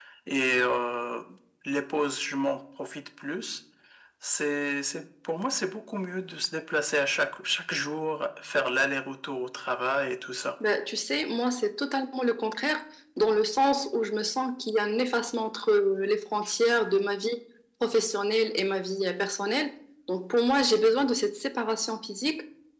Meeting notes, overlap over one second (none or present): none